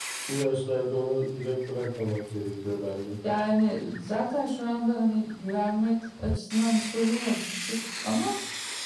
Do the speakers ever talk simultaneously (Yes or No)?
No